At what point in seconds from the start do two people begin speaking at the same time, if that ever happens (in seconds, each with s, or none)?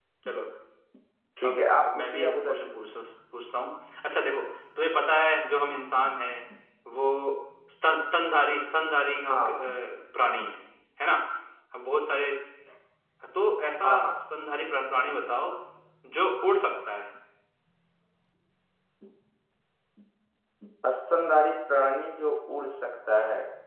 1.4 s